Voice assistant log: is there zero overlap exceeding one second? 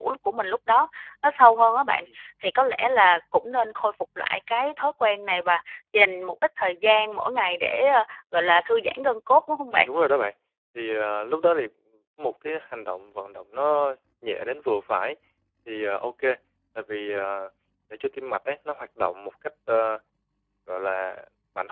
Yes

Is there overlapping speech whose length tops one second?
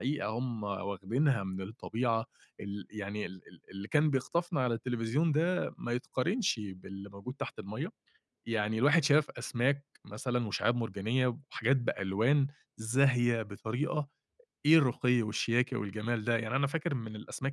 No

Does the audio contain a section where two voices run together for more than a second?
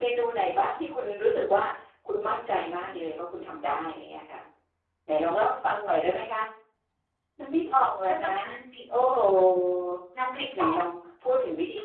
No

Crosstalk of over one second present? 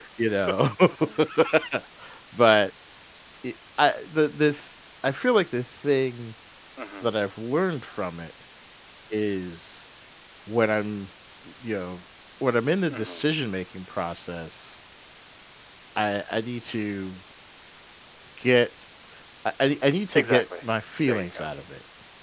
No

